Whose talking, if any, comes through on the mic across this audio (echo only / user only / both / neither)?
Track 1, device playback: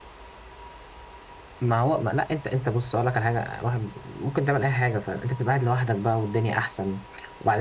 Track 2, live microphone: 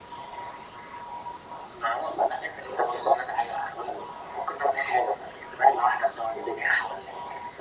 echo only